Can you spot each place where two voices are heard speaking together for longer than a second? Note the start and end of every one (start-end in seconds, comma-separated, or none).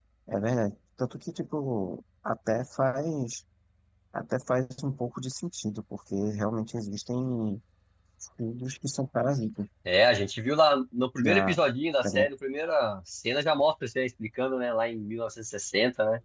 none